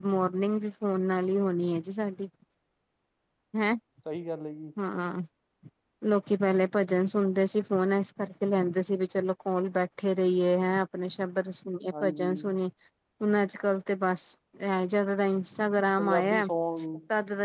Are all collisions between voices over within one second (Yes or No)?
Yes